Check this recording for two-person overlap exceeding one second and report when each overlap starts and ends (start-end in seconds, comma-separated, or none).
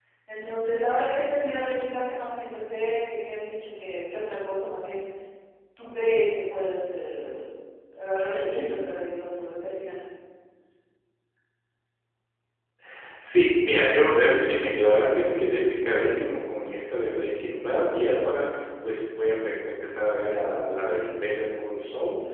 none